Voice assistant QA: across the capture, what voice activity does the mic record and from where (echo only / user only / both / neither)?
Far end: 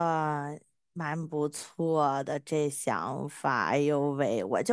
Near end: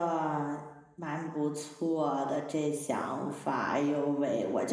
echo only